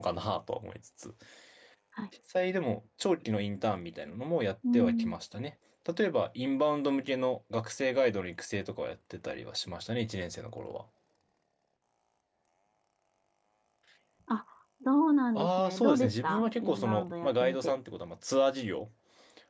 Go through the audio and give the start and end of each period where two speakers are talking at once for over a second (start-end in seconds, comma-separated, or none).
15.4-17.8